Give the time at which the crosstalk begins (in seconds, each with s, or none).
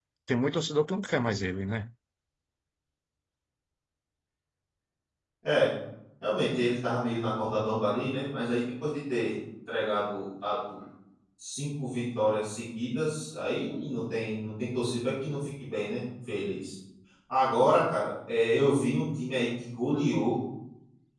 none